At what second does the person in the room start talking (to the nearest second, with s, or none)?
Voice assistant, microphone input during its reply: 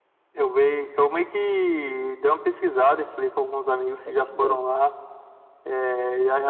4 s